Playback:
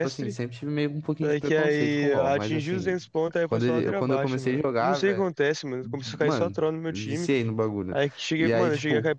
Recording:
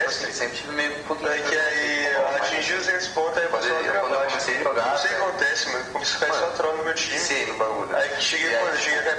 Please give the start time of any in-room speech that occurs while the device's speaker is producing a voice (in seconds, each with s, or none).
none